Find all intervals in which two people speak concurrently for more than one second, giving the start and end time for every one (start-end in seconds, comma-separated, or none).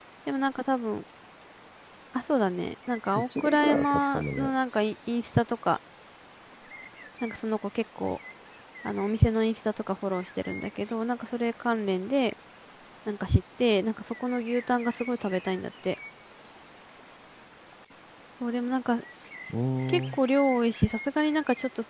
3.2-4.5